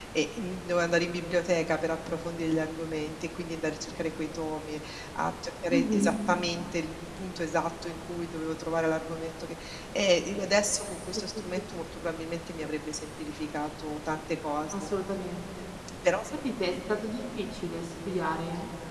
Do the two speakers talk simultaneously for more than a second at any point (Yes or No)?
No